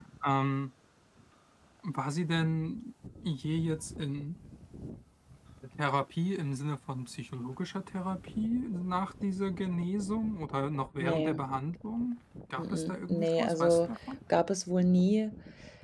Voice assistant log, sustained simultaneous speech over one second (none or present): present